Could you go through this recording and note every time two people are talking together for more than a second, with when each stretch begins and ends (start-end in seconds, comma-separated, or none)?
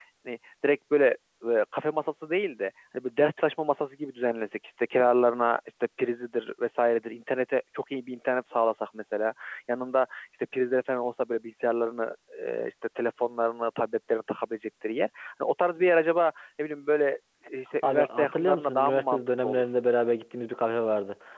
17.8-19.6